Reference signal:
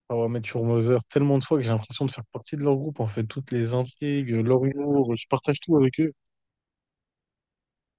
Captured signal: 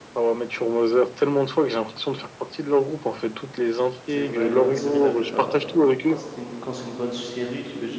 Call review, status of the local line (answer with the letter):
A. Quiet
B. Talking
B